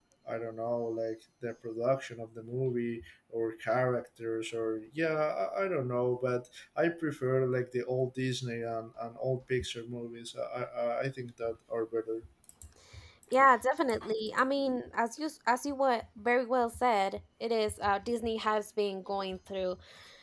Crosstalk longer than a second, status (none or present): none